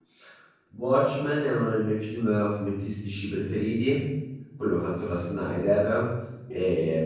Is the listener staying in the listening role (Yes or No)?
Yes